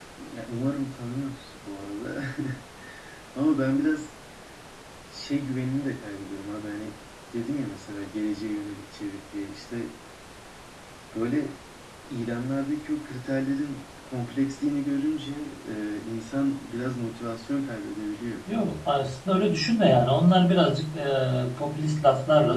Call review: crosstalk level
none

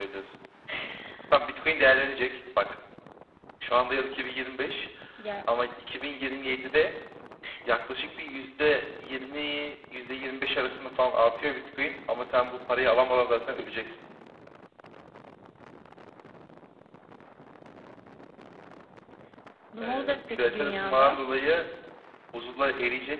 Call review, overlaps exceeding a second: present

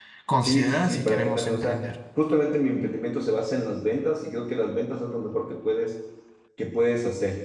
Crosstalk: present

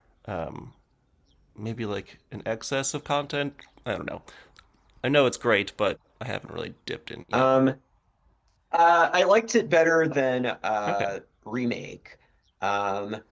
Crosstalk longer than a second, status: none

